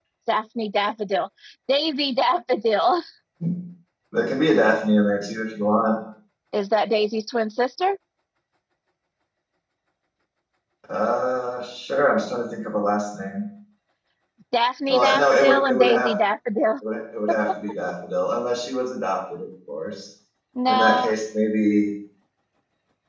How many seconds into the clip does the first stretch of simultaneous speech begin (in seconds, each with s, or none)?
14.9 s